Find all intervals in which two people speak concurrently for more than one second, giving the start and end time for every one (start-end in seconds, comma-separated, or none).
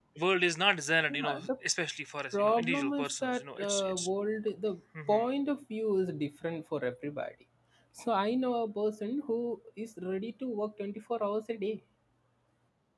2.3-4.0